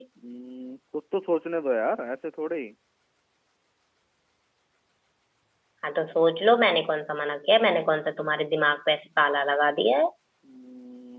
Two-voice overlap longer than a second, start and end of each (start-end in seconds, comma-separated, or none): none